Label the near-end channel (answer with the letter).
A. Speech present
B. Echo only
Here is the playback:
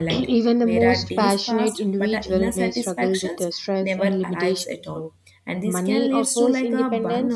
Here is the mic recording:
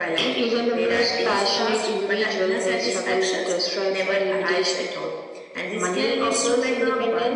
B